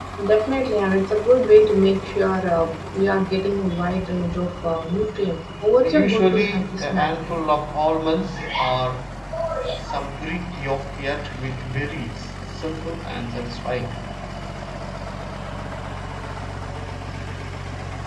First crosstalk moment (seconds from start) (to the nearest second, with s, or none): 6 s